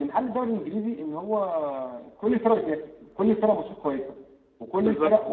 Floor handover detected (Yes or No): No